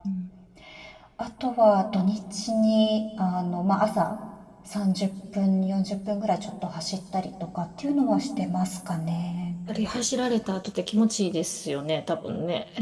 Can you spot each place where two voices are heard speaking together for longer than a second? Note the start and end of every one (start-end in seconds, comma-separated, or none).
none